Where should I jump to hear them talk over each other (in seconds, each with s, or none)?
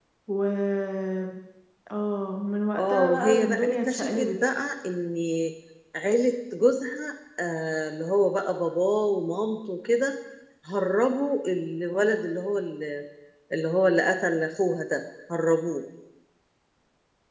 2.8 s